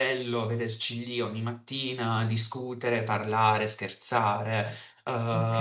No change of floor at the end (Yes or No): Yes